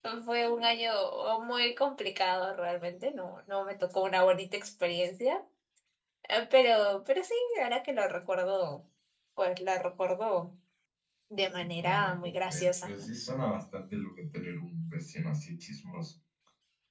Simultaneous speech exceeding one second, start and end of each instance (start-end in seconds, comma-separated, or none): 11.8-13.1